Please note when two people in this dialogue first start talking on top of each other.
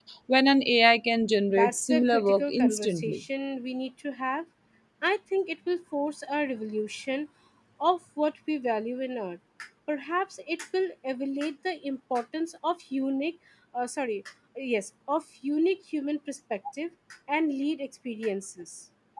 1 s

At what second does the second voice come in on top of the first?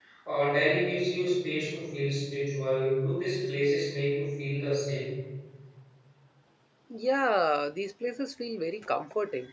none

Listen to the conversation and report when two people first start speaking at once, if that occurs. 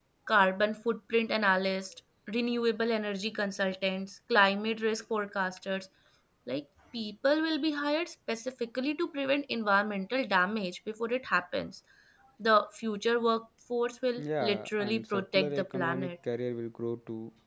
14 s

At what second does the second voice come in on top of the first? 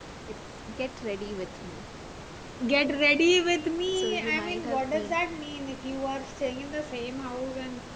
4 s

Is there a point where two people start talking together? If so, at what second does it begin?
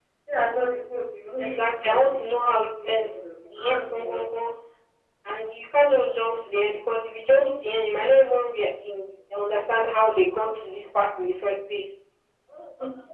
1 s

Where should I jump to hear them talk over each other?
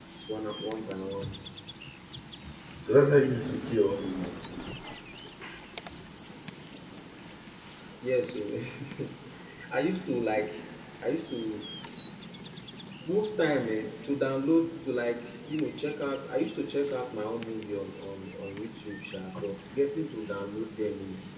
none

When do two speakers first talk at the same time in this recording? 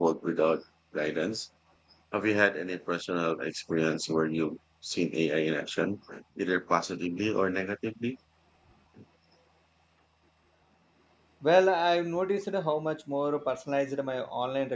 none

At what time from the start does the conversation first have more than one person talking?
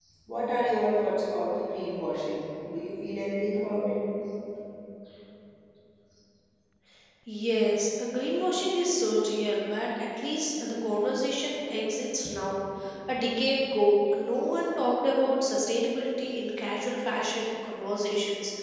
none

